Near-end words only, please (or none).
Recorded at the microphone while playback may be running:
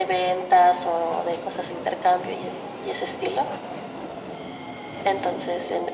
none